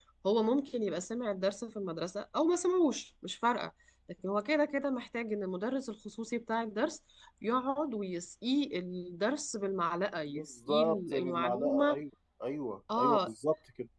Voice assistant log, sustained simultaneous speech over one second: present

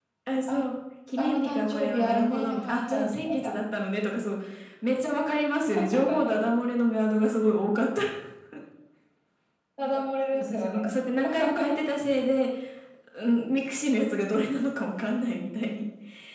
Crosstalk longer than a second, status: present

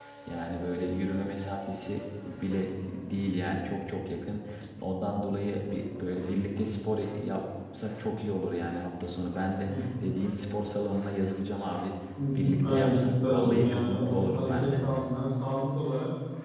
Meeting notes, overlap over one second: present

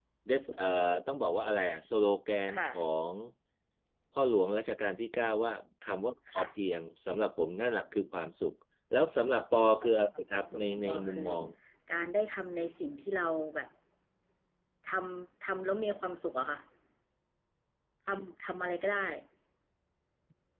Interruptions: present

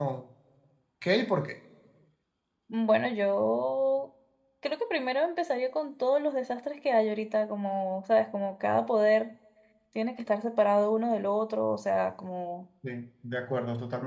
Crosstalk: none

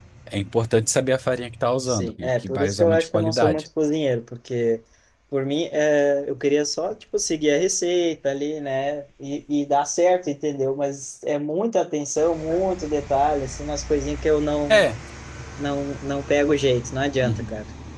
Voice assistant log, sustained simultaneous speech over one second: present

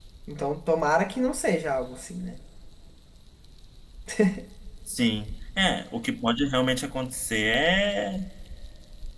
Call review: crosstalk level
none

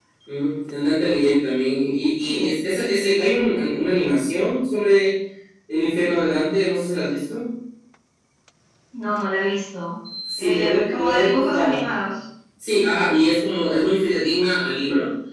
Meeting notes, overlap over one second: present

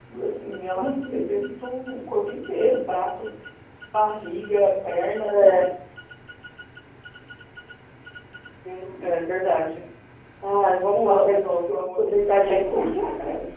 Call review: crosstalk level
present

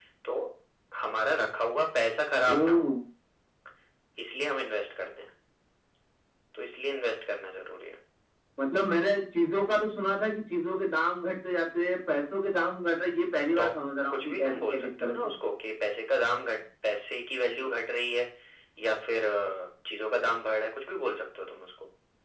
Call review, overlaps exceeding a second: present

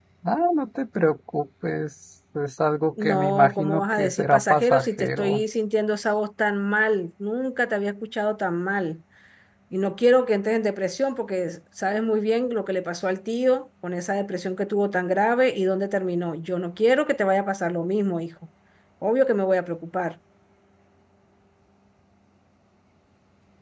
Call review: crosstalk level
present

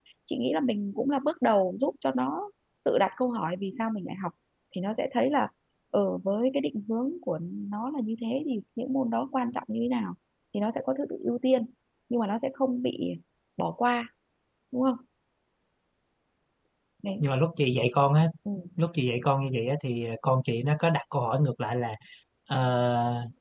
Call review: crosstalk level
none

